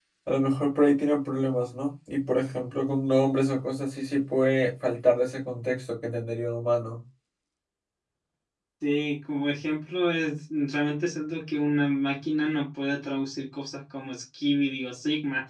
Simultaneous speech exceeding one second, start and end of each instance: none

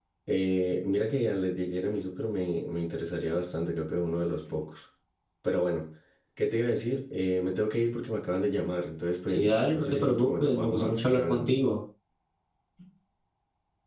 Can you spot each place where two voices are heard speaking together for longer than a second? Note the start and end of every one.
9.3-11.5

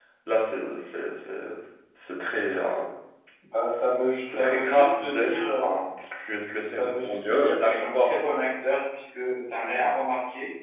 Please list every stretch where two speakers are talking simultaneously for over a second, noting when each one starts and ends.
4.3-5.7, 6.8-8.2

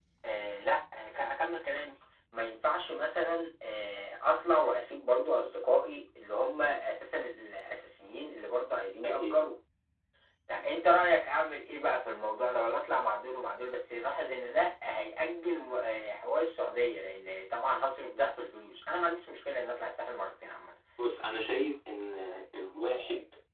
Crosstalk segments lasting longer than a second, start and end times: none

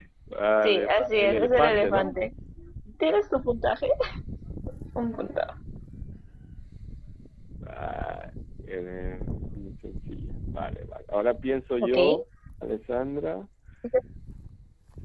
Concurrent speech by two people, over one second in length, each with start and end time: 0.6-2.1

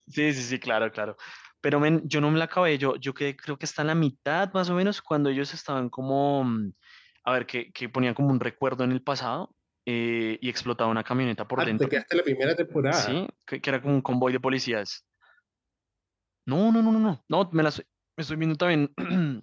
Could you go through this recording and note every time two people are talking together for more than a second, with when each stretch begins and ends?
none

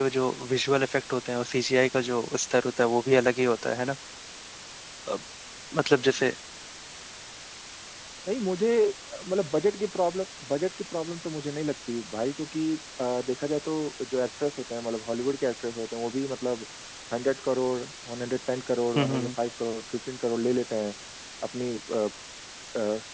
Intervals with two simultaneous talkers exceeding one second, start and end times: none

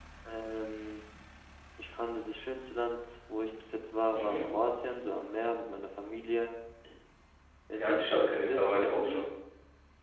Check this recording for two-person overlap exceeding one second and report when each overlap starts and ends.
7.8-9.2

